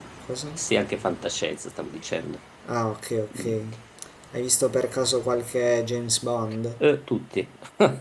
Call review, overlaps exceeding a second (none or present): none